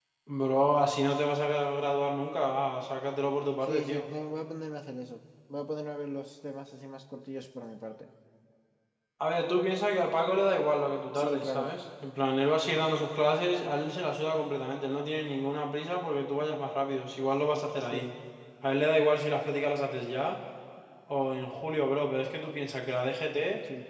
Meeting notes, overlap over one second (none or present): none